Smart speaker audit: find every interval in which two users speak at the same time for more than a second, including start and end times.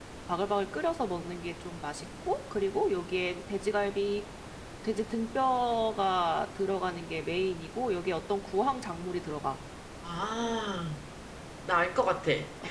none

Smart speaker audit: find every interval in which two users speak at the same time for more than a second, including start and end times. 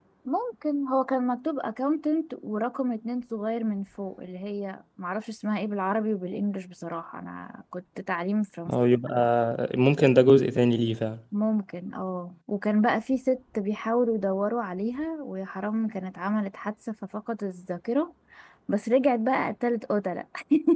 none

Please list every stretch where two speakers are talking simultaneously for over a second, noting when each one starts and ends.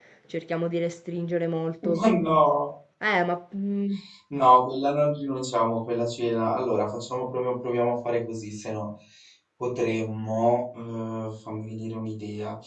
none

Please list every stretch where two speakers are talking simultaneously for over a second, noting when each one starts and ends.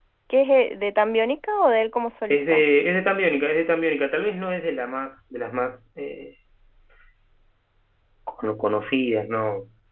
none

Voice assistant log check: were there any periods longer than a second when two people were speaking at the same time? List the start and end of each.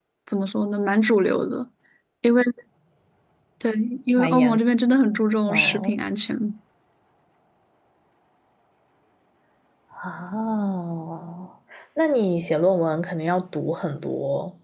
none

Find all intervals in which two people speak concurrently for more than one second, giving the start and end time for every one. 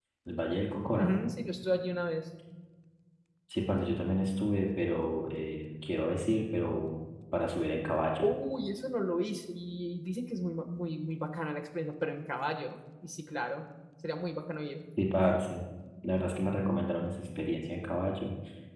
none

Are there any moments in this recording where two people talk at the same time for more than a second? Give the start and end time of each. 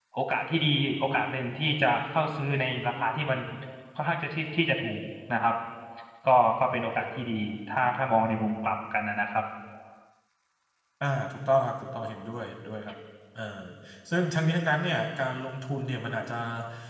none

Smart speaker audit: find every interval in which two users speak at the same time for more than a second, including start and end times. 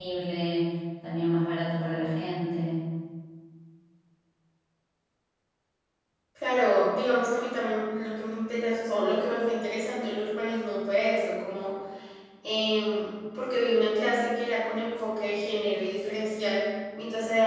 none

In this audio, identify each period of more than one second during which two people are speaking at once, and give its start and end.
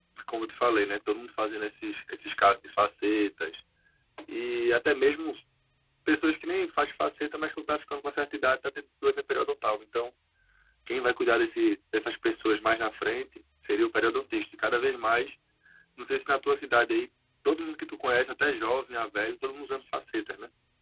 none

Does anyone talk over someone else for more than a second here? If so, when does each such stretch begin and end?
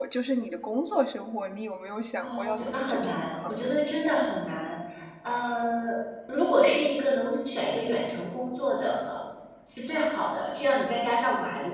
2.2-3.5

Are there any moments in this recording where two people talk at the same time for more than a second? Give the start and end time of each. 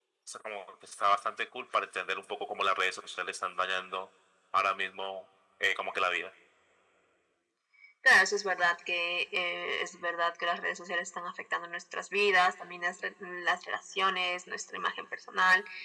none

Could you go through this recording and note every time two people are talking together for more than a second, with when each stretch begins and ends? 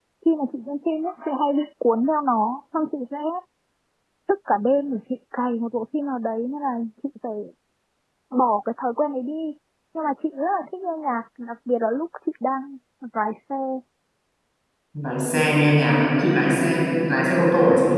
none

